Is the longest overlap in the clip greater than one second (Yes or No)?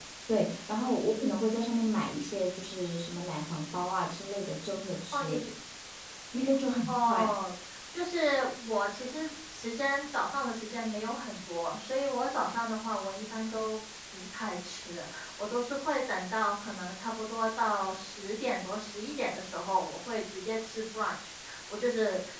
No